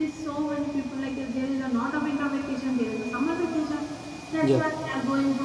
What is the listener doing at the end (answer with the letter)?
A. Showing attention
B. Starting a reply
A